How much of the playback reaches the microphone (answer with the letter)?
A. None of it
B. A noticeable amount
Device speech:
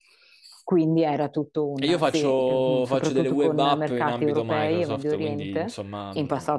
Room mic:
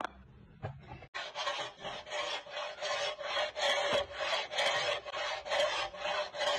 A